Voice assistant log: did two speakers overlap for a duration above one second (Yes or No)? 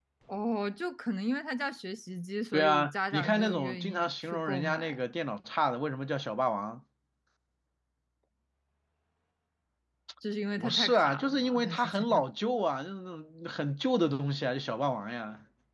Yes